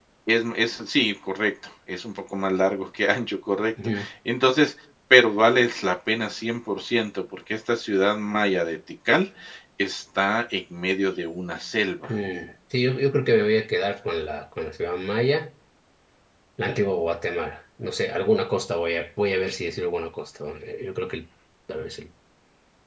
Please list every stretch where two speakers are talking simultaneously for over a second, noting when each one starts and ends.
none

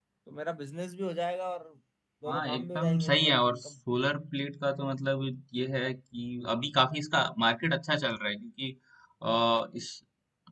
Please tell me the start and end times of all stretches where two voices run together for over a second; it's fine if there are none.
2.3-3.7

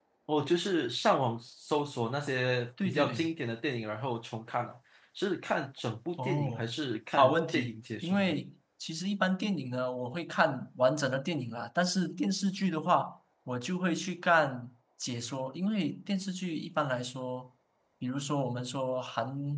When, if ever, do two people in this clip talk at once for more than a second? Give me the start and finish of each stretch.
7.1-8.3

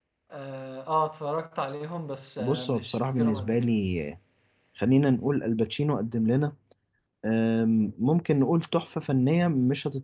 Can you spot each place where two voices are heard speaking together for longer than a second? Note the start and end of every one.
2.4-3.7

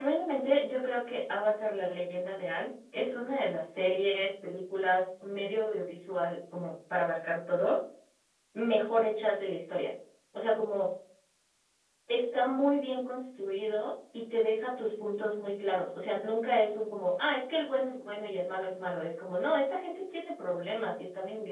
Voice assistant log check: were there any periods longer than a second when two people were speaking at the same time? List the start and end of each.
none

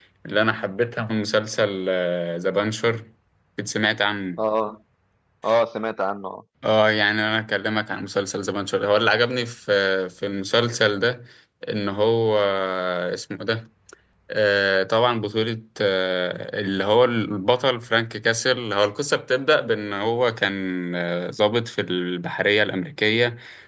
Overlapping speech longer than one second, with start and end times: none

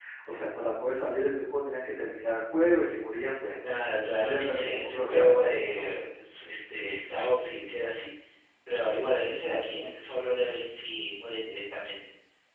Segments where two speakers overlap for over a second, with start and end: 4.1-5.9

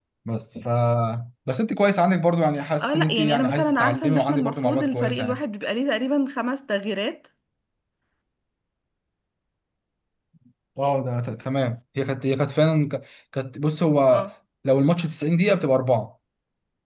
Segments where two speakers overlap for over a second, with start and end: 2.8-5.4

